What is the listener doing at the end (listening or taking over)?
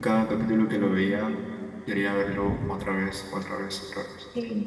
taking over